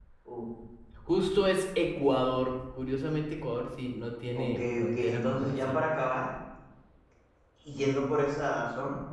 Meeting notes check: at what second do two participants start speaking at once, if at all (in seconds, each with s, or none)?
4.3 s